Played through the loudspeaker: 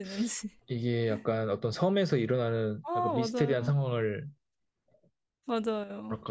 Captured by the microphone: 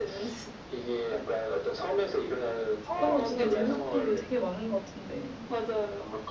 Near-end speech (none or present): present